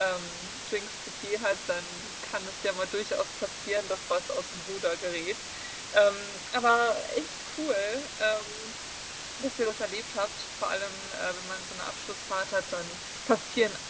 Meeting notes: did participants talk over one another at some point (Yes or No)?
No